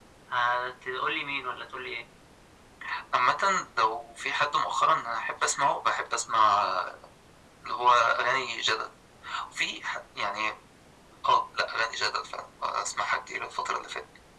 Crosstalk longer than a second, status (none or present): none